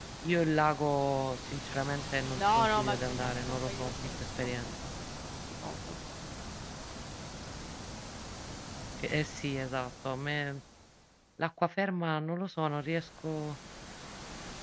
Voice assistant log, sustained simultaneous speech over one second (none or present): present